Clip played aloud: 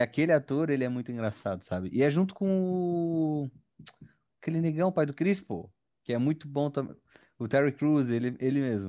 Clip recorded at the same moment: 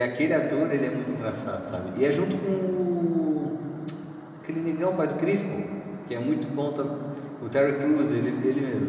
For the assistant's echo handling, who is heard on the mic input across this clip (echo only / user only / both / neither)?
echo only